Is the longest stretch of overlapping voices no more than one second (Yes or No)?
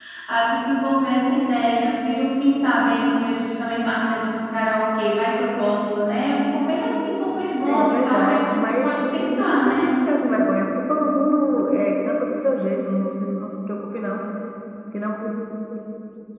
No